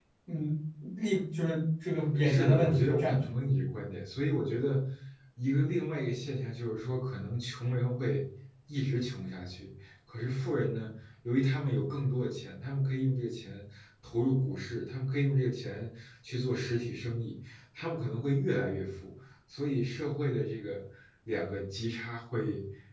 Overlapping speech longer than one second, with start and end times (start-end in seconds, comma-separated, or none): 2.1-3.4